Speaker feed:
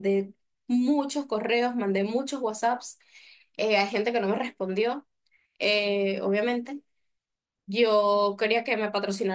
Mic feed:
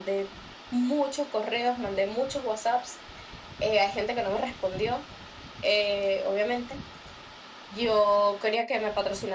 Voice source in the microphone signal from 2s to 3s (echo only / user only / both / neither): echo only